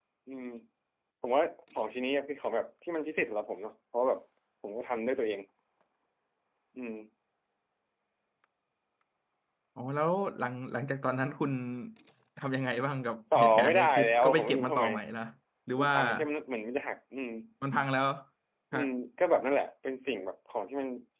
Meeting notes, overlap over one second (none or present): present